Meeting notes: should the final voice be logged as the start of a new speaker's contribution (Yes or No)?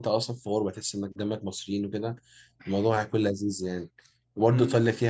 No